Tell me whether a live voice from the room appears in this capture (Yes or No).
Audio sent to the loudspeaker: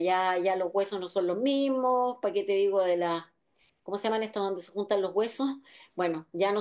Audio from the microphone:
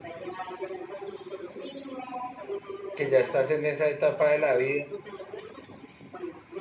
Yes